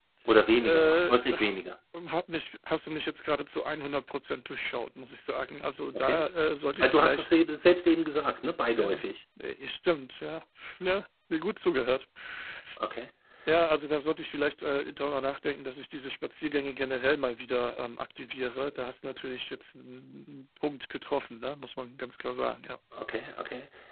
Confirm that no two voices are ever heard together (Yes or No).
No